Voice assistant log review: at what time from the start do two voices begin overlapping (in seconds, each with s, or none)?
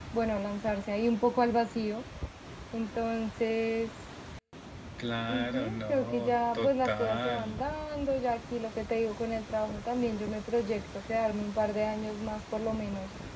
5.3 s